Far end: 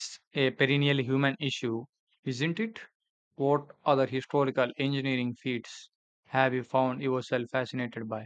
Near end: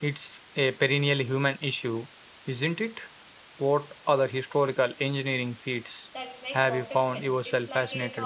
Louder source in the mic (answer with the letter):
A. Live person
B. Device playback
B